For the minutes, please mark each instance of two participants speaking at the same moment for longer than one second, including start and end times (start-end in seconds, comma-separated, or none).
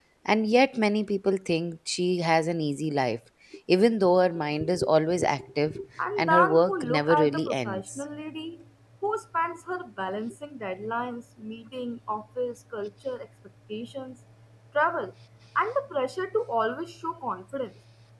6.2-8.0